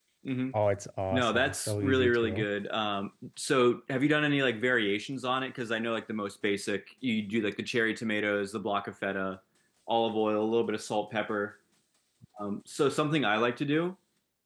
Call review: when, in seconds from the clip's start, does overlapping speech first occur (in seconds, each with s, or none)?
1.1 s